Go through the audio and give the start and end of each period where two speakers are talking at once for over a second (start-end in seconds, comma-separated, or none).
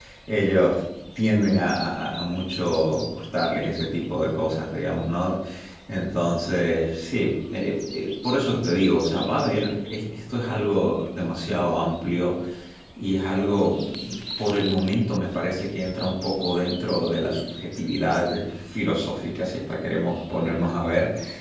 none